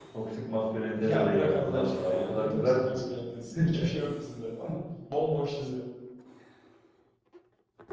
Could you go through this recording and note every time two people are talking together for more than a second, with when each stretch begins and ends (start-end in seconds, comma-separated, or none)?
1.0-3.0